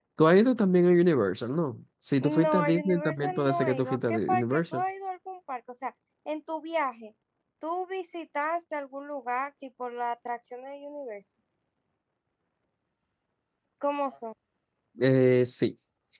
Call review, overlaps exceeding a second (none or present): present